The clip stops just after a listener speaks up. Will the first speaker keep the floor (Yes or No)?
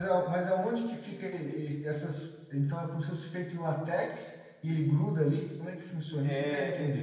No